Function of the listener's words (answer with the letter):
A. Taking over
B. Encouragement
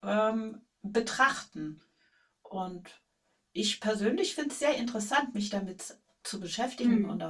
B